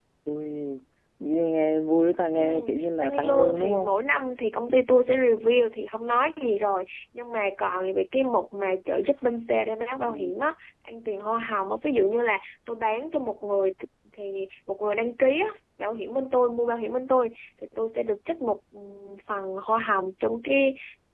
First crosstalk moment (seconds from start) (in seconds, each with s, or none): 2.3 s